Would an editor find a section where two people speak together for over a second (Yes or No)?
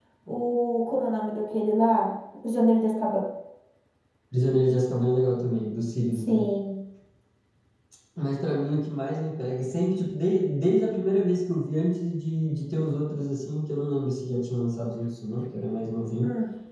No